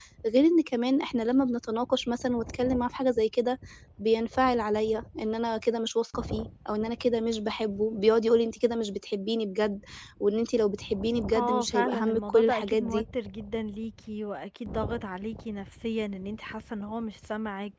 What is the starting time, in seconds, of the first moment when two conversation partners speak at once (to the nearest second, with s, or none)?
11 s